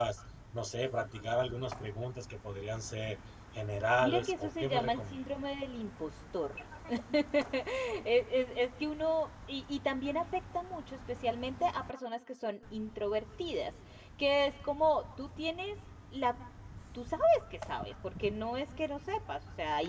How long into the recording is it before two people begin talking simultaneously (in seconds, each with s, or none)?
4.0 s